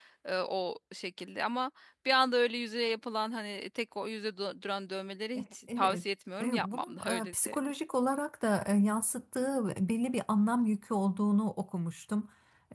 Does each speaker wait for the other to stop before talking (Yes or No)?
No